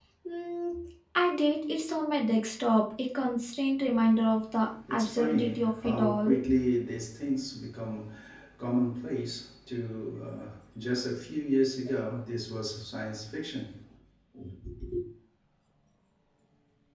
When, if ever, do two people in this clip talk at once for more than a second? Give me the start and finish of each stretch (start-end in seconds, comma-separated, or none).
4.9-6.4